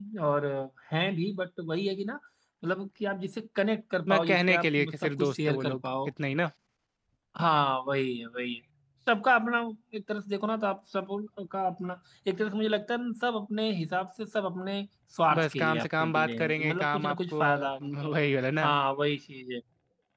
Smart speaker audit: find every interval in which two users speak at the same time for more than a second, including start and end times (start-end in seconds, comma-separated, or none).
4.1-6.1, 15.3-18.1